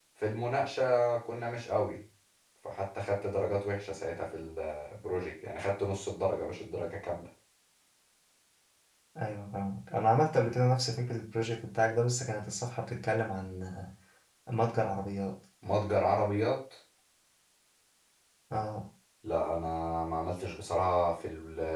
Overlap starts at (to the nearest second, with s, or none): none